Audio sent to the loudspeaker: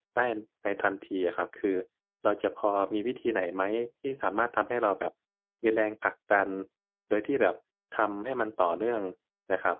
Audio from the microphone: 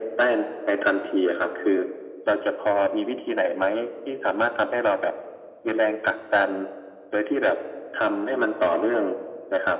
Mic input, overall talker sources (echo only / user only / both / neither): echo only